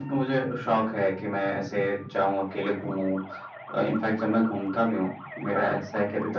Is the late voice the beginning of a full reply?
No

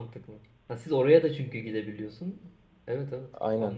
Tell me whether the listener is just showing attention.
No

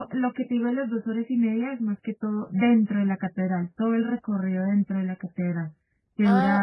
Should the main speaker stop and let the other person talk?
Yes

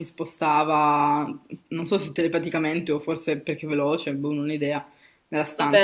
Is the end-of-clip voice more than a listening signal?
Yes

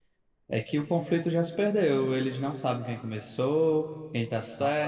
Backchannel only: Yes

